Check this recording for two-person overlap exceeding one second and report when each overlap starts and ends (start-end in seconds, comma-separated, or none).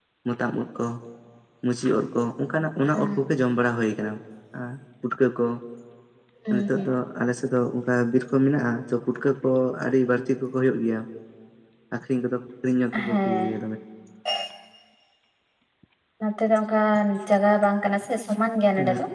none